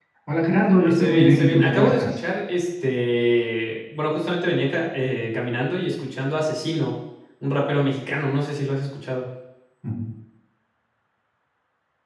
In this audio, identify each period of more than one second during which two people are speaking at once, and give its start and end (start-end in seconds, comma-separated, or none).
0.8-2.2